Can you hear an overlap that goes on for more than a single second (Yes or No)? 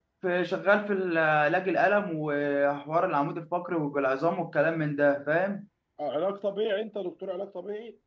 No